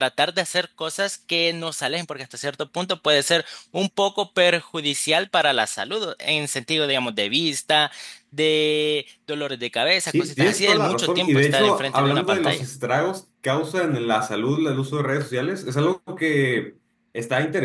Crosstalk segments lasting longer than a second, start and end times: 10.1-12.6

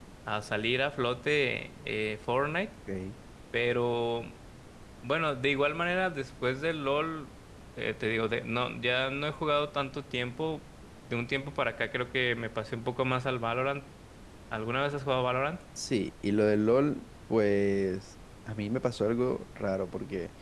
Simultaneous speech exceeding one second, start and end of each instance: none

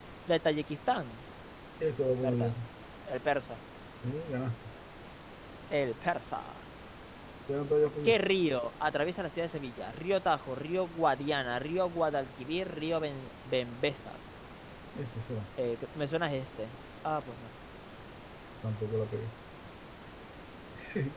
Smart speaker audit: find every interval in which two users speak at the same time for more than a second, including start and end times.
none

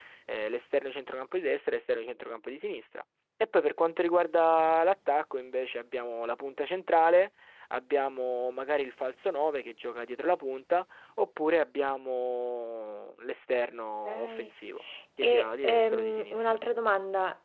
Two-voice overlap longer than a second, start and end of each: 15.2-16.4

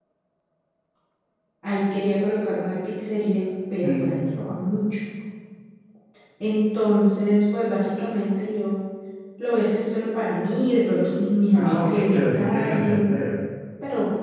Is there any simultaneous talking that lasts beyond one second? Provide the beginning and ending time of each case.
11.5-13.1

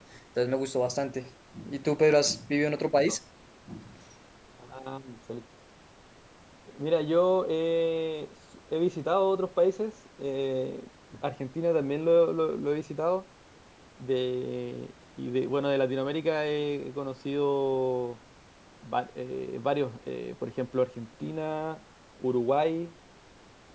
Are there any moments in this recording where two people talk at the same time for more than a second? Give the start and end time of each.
none

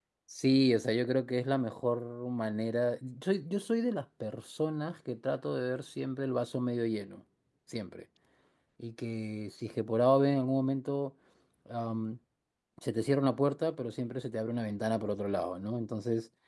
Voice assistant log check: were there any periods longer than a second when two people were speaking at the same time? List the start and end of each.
none

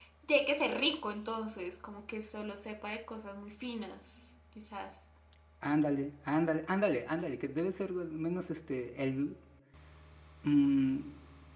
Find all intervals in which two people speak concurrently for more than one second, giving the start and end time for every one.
none

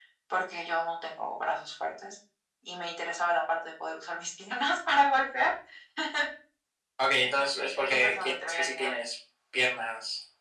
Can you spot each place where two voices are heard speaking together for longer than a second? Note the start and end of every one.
7.2-9.0

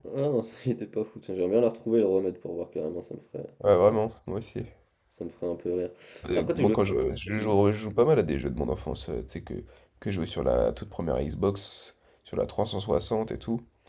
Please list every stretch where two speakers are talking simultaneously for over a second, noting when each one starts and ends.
none

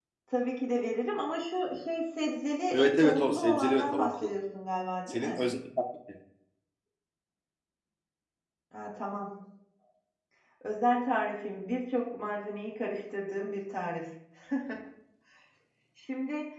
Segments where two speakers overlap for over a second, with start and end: 2.7-4.3

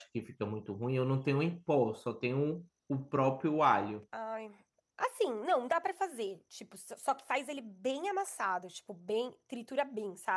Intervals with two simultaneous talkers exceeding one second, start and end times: none

